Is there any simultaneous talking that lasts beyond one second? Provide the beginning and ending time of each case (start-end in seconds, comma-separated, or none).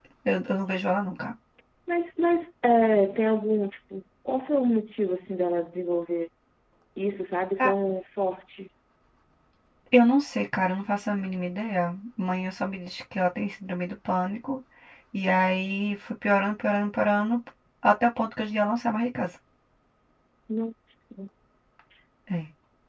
none